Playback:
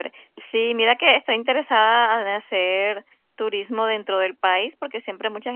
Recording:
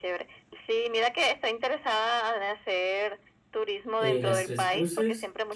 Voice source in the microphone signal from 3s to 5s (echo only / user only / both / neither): both